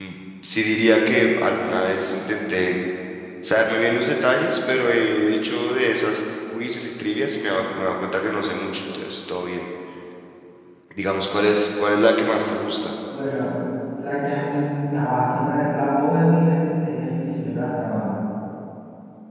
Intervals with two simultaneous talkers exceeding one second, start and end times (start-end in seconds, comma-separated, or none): none